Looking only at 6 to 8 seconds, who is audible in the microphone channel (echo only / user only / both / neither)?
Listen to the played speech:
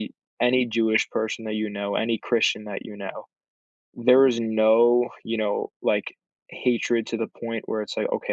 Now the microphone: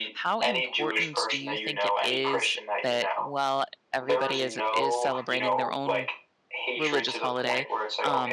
both